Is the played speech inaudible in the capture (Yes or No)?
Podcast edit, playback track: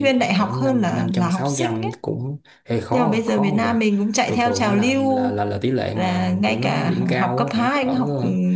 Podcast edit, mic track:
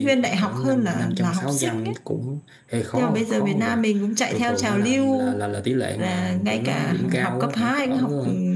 No